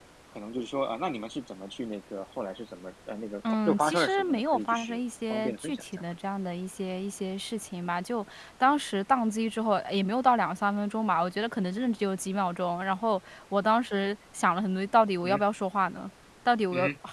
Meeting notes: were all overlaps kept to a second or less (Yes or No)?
No